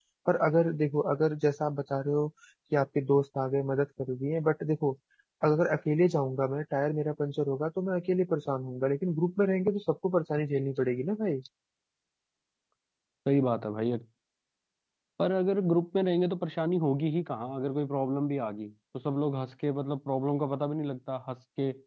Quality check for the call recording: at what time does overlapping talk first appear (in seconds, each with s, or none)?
none